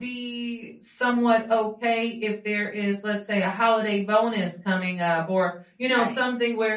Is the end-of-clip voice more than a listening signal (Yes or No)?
No